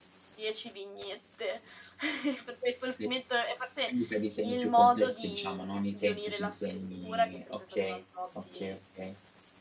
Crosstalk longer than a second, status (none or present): present